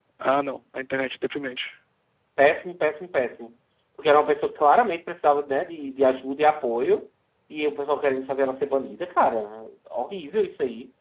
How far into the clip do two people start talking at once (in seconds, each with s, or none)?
none